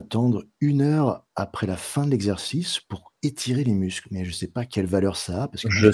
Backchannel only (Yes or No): No